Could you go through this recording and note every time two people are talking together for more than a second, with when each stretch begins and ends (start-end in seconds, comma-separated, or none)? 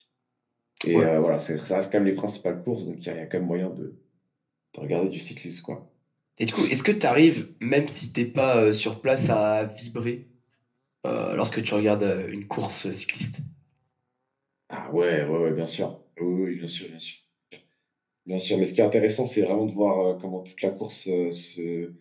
none